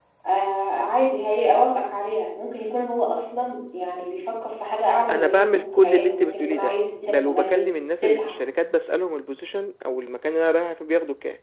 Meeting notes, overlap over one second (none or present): present